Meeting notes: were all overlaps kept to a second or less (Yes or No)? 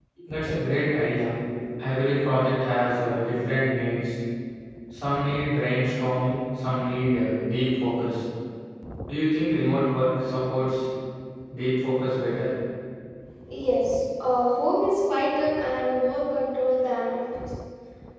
Yes